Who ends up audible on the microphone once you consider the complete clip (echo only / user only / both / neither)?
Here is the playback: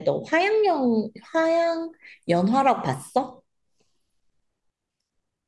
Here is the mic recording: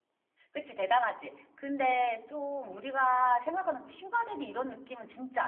user only